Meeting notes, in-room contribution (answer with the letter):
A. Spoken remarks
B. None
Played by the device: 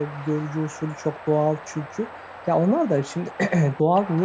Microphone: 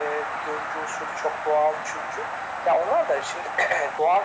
B